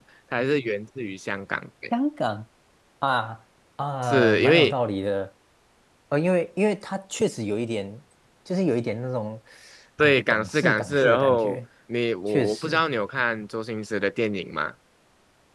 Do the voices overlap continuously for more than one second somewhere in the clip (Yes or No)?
Yes